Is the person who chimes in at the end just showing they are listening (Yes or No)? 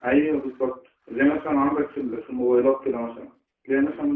Yes